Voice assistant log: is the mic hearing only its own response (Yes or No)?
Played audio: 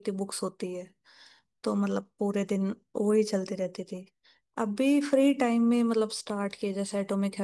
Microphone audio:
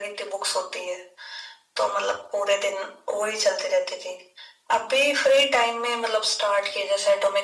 Yes